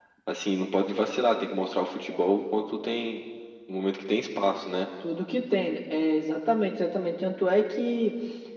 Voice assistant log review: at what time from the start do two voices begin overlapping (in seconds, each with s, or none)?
none